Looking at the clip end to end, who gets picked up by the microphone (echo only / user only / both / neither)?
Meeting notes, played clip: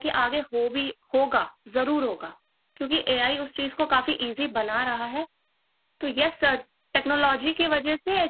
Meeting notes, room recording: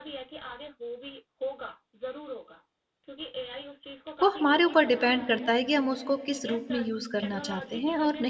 both